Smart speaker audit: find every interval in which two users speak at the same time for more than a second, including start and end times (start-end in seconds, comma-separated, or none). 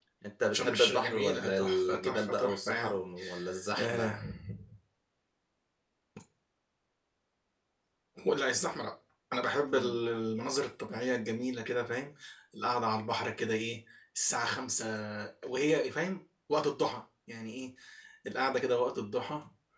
0.5-3.0